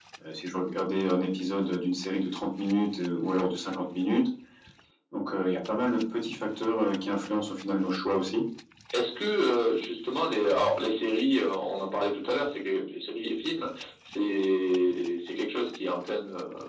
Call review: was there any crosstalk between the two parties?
No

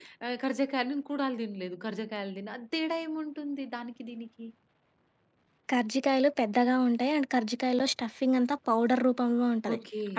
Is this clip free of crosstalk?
Yes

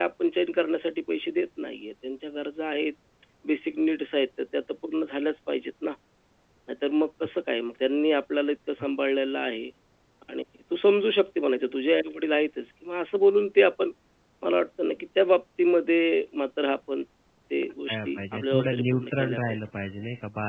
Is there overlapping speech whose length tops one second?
Yes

